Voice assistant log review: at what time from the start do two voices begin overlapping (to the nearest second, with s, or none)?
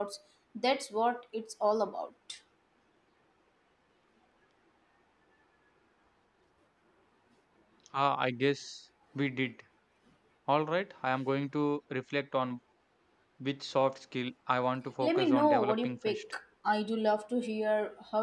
15 s